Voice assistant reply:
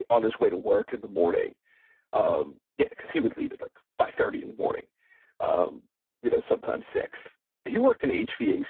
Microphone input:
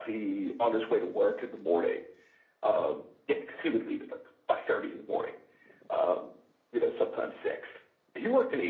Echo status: present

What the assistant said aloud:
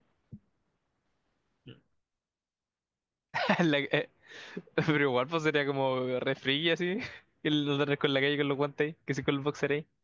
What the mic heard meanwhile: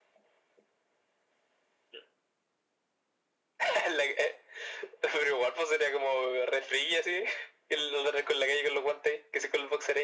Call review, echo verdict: present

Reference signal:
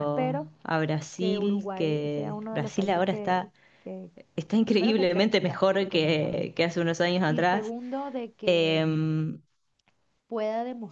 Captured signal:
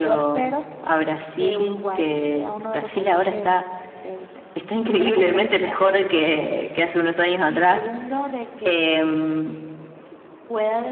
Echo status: present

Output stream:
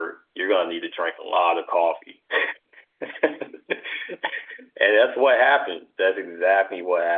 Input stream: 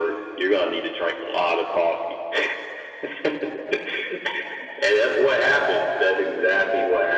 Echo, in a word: present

